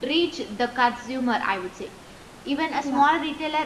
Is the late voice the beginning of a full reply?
No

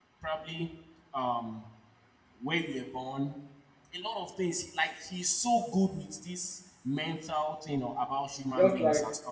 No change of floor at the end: No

